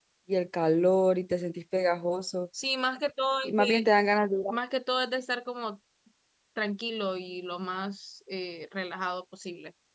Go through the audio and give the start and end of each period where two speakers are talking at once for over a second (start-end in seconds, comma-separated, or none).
none